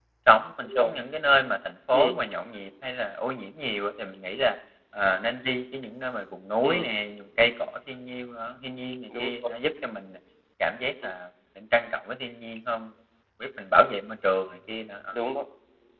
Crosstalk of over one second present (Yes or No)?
No